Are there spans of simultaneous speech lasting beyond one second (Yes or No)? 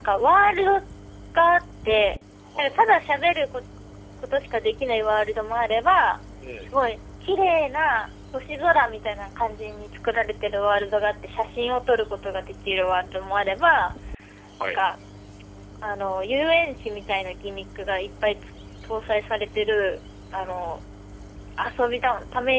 No